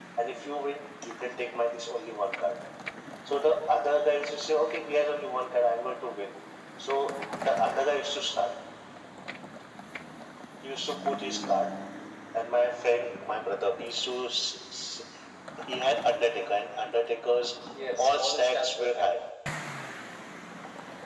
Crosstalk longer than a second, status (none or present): present